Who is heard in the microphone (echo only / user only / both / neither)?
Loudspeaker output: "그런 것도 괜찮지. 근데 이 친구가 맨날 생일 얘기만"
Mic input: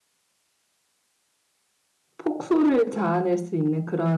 user only